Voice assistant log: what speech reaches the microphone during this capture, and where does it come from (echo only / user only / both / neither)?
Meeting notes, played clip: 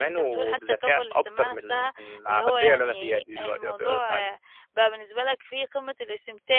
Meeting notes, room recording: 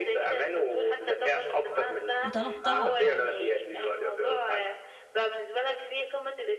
both